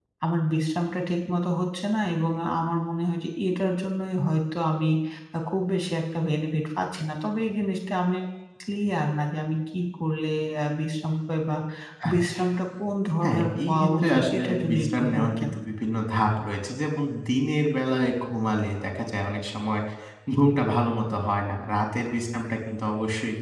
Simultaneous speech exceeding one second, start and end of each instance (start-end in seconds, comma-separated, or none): 13.2-15.5